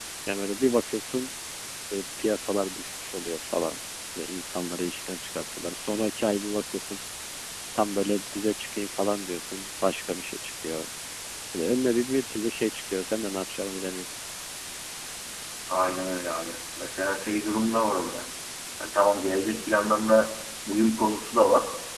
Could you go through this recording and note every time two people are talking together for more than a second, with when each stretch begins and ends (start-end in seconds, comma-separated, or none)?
none